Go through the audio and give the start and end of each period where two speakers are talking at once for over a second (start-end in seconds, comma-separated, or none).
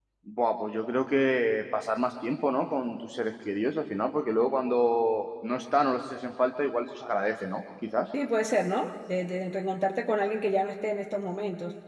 none